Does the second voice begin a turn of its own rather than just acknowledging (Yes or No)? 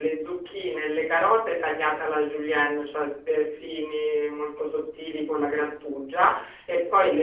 No